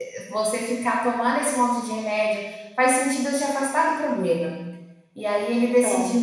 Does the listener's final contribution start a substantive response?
No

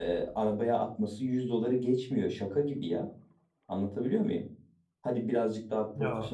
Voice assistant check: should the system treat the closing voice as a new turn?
No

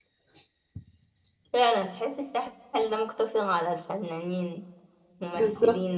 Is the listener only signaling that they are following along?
No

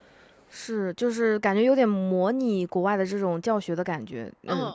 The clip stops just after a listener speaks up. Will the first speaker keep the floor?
No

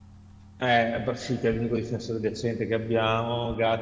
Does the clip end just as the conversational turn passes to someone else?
No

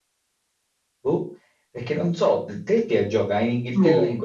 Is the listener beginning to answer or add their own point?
No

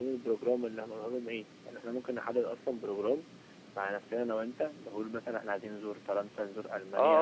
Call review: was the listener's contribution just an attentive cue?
No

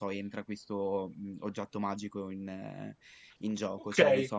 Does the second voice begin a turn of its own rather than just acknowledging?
Yes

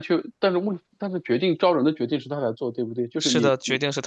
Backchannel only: No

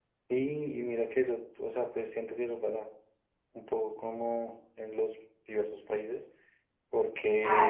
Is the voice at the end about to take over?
Yes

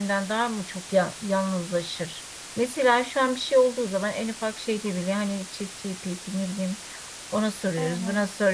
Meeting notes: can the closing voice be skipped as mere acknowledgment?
Yes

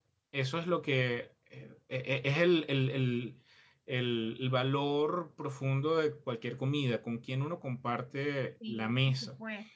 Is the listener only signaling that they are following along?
No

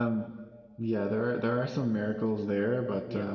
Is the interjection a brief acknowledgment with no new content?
Yes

